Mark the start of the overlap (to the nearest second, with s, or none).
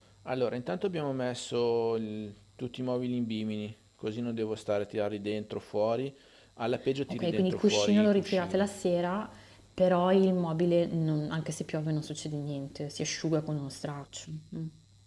7 s